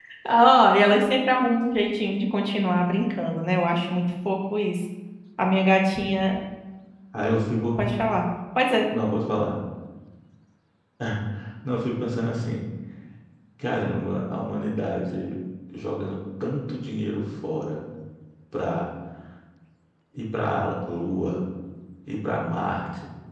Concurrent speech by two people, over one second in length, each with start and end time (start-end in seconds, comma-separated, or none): none